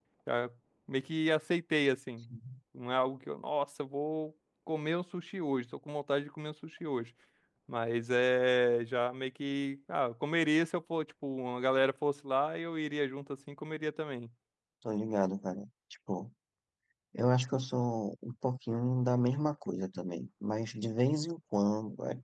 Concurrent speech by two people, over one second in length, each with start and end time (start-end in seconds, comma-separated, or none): none